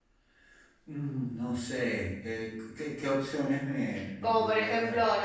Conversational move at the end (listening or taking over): taking over